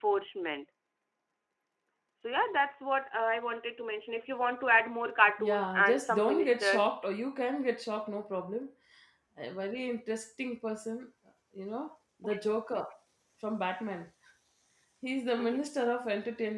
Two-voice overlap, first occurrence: 5.4 s

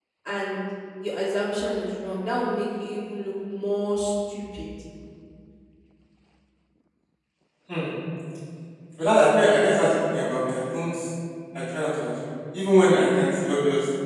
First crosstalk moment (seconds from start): none

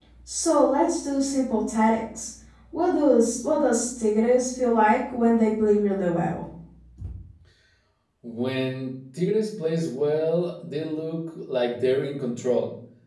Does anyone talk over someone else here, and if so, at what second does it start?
none

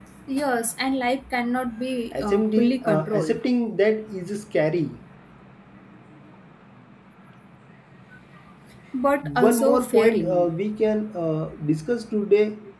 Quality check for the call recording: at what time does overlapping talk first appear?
2.1 s

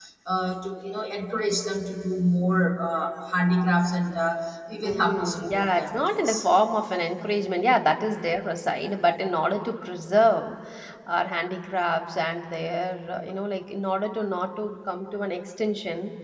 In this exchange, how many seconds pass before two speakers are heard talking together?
4.8 s

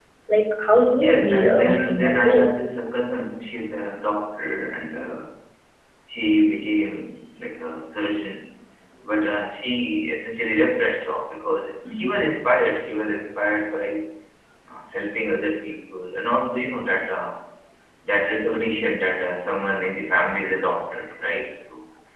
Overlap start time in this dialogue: 0.9 s

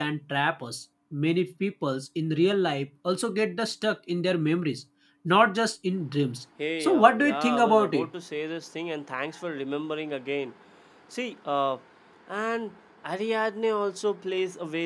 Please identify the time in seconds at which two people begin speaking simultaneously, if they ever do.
6.6 s

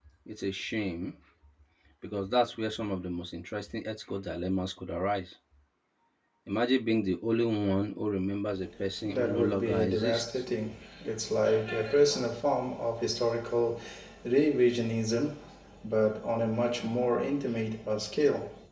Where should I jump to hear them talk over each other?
9.0 s

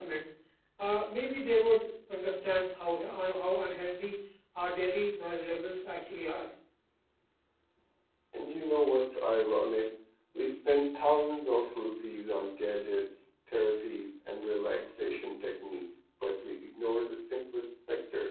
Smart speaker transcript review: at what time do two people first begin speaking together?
none

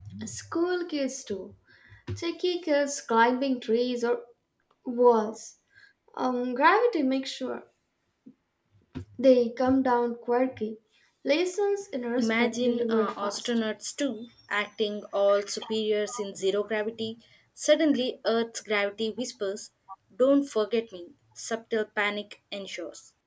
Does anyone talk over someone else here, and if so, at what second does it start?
12.2 s

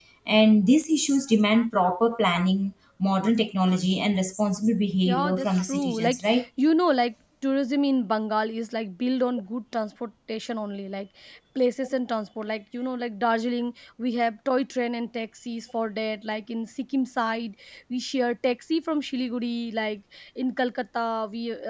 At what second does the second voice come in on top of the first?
5.0 s

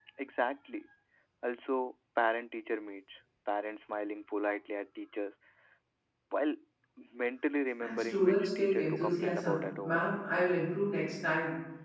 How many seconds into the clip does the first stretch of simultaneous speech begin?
7.8 s

